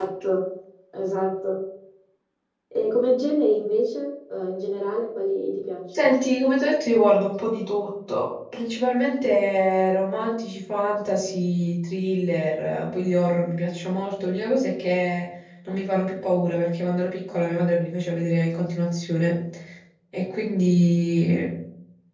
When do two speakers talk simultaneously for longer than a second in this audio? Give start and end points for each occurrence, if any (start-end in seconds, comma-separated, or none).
none